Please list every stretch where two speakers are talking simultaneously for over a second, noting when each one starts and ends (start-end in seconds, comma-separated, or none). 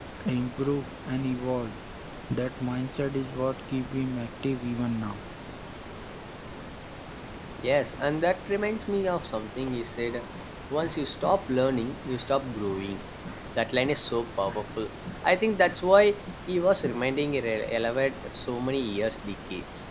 none